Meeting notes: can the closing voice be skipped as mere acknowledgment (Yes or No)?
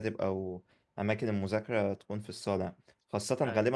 Yes